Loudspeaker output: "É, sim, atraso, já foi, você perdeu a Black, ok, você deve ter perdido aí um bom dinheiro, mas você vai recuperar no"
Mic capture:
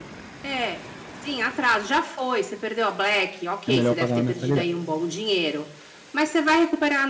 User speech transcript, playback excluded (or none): é melhor eu pagar uma mensalidade.